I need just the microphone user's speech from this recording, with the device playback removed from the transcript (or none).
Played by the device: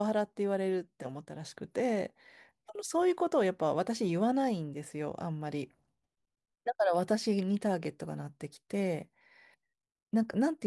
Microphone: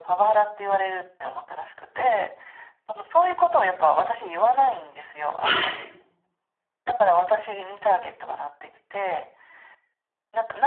はい。